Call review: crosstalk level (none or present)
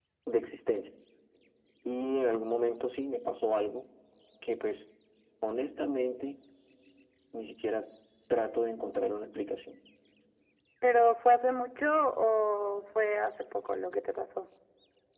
none